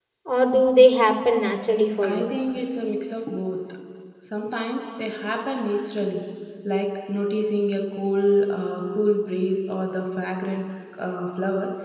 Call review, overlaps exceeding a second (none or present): none